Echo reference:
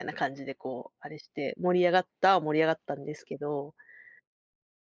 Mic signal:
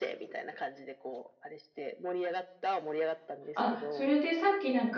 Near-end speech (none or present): present